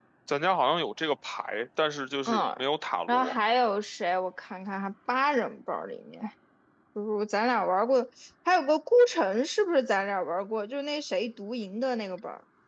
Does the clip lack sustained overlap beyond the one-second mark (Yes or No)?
Yes